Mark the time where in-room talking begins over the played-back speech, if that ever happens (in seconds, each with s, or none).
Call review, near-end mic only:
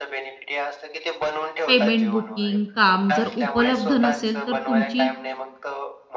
1.7 s